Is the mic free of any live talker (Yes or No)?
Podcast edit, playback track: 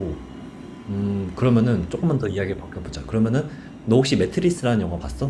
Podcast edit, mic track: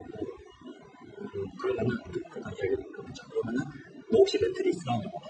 Yes